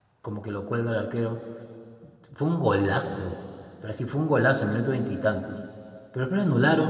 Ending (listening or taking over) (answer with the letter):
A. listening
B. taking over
A